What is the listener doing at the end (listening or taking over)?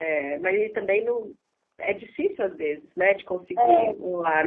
taking over